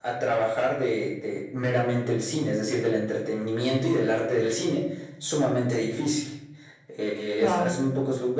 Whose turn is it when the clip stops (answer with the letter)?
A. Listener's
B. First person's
B